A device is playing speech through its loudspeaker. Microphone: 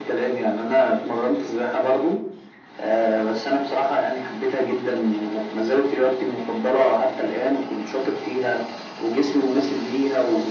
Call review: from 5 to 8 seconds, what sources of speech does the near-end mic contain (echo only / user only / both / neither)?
echo only